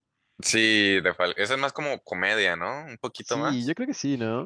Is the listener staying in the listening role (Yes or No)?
No